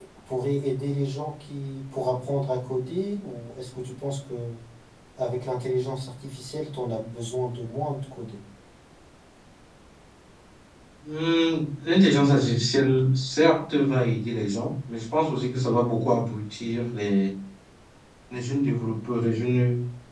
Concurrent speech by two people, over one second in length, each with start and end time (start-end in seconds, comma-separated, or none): none